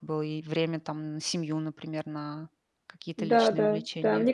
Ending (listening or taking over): taking over